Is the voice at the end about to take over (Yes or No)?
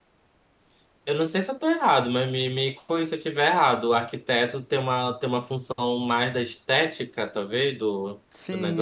Yes